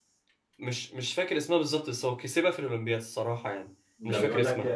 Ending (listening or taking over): taking over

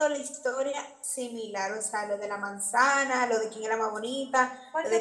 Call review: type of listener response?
taking over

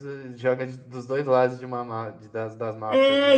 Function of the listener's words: taking over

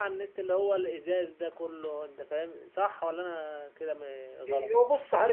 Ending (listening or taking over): taking over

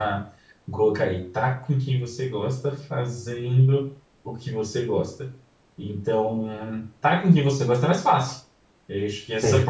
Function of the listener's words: listening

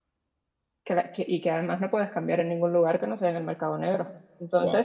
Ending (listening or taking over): listening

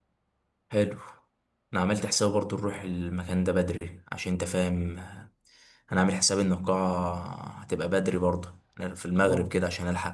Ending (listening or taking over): listening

